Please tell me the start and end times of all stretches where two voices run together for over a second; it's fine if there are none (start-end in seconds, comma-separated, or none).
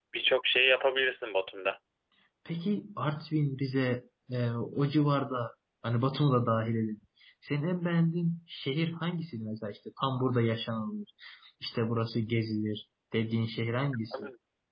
none